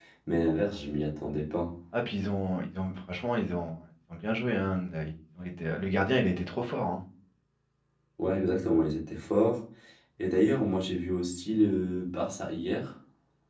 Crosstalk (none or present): none